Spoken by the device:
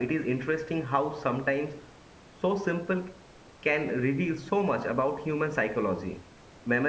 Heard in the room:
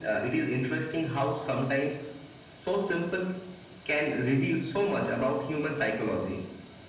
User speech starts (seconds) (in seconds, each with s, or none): none